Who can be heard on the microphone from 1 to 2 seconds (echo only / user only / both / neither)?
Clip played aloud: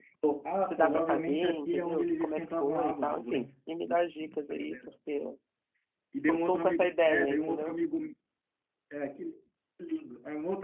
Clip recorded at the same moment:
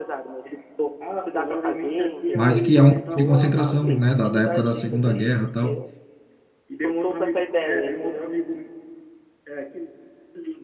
echo only